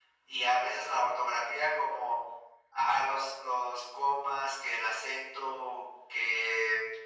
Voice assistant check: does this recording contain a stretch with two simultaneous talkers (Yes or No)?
No